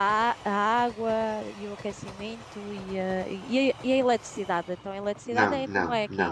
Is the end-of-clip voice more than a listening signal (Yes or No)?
Yes